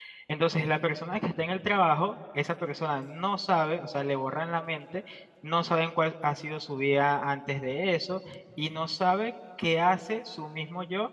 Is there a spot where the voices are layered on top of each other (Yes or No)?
No